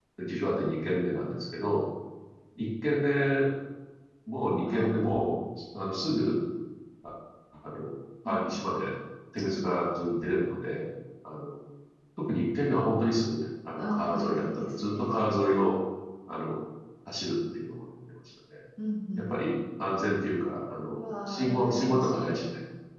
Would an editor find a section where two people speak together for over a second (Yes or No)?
Yes